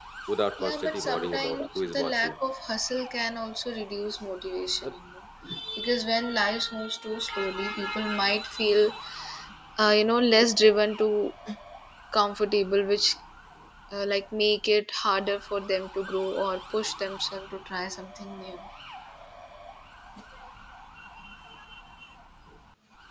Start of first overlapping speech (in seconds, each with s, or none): 0.6 s